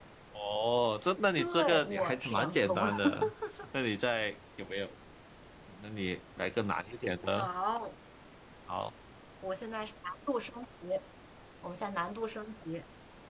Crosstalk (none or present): present